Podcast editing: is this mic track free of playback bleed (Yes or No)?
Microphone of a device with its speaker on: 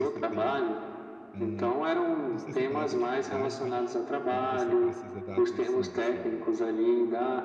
No